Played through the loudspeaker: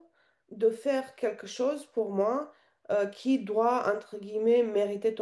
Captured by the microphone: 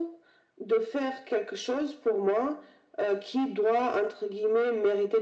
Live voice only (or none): none